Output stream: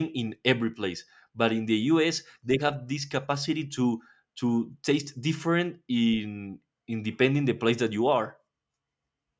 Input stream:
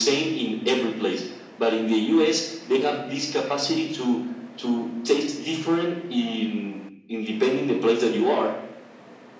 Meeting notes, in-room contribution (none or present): none